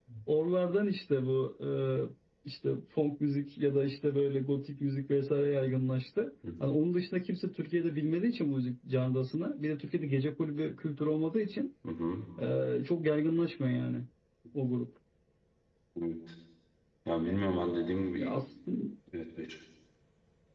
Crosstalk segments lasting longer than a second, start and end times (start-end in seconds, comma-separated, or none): none